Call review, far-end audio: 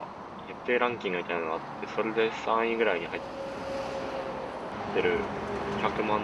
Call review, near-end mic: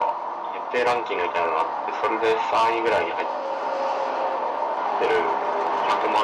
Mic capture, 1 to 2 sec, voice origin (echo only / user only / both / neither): echo only